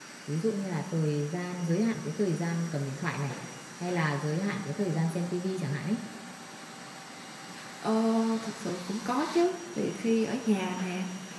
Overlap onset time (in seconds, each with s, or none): none